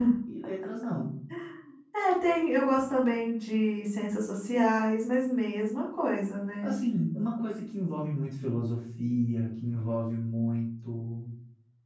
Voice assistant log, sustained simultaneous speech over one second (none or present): none